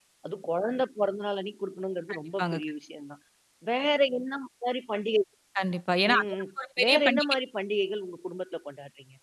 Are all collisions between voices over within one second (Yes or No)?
Yes